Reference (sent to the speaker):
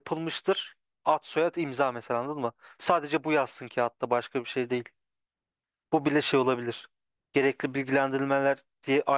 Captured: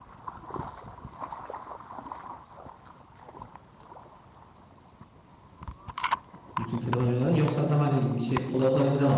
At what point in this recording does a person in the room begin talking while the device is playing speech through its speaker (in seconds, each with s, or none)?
6.6 s